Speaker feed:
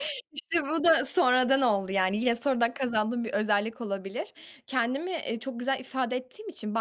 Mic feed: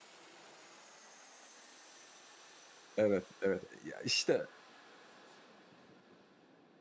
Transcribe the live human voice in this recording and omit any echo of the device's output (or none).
Evet, evet, ya, işte,